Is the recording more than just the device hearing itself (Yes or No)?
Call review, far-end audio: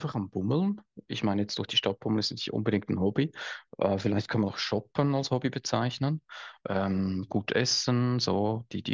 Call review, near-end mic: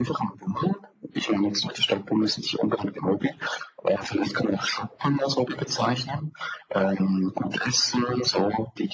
No